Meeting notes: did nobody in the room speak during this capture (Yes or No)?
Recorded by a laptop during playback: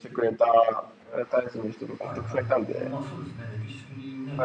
No